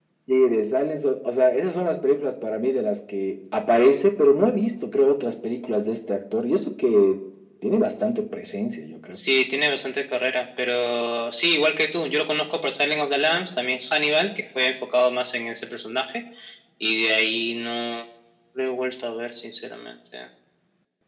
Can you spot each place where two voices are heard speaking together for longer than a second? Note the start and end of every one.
none

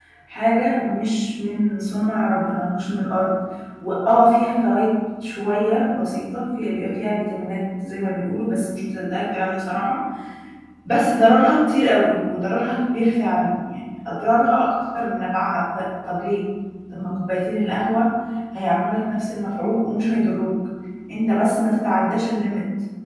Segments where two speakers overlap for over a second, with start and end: none

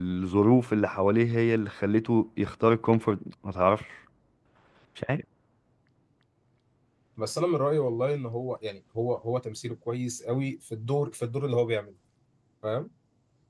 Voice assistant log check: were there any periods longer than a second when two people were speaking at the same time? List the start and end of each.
none

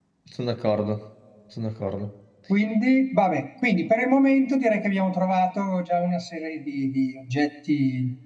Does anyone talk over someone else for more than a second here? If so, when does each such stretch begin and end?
none

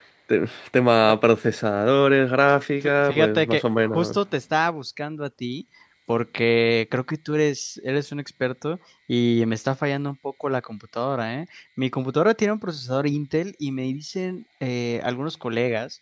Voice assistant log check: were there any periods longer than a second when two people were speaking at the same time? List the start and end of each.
2.8-4.2

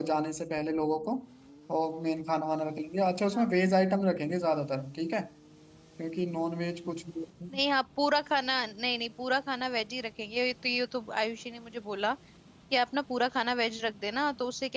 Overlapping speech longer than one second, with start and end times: none

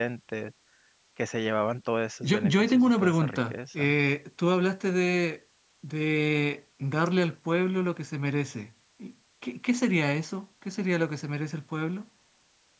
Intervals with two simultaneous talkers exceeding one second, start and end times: 2.2-3.9

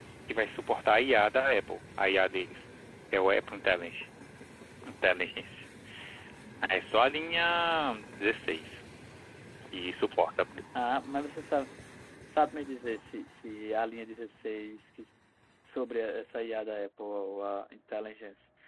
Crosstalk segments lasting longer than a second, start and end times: none

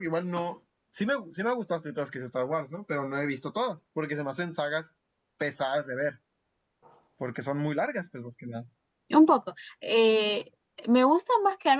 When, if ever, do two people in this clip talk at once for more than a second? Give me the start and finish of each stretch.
none

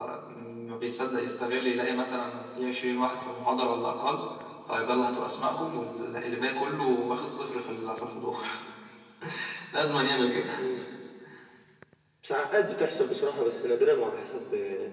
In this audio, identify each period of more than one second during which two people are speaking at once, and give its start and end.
none

